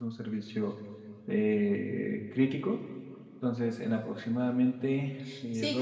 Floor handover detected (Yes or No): Yes